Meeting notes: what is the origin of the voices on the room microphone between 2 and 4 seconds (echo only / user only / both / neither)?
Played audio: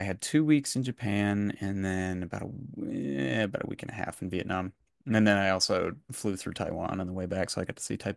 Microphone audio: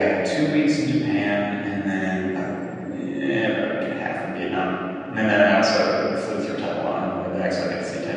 echo only